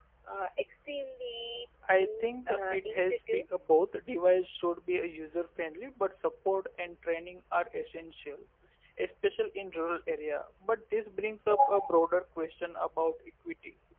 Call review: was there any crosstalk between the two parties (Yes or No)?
Yes